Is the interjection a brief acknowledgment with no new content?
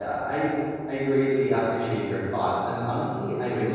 Yes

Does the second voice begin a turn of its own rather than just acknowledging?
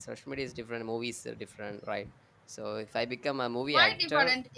Yes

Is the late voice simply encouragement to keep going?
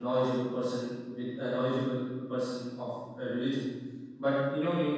Yes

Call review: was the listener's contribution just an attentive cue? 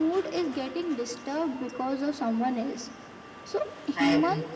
Yes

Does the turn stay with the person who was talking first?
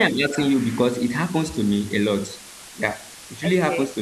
Yes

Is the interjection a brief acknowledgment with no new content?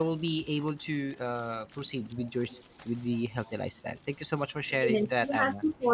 No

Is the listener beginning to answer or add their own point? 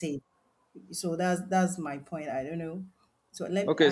Yes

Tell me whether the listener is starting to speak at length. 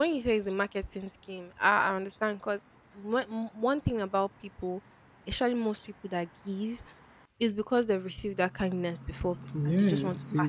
Yes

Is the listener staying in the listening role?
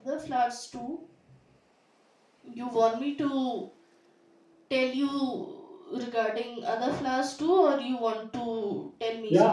No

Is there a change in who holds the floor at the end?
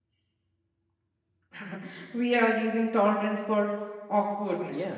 Yes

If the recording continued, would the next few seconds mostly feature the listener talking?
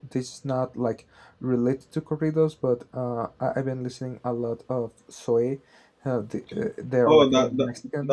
Yes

